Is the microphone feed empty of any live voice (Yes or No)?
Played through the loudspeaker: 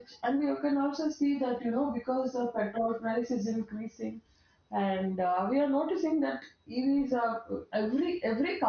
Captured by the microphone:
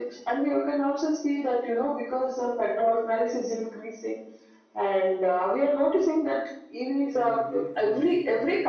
No